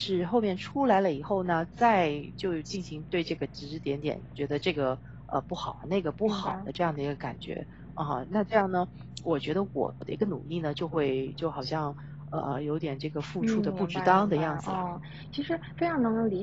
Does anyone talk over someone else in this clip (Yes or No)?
Yes